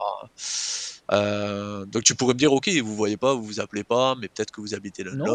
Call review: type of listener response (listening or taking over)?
taking over